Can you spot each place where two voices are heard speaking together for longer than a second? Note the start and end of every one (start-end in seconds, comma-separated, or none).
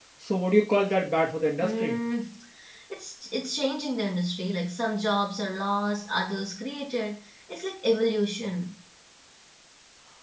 none